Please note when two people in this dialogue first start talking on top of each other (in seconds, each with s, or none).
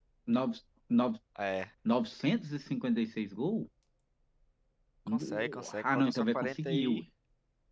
5.1 s